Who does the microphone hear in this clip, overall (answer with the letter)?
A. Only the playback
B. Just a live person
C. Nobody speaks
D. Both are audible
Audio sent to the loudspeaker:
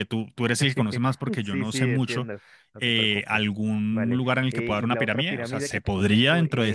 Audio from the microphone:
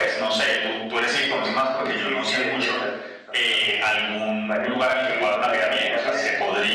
A